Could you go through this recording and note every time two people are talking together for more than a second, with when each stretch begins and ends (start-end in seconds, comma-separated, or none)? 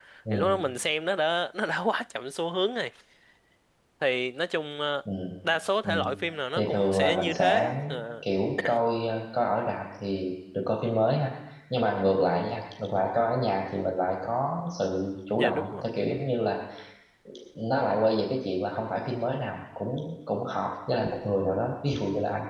6.5-7.7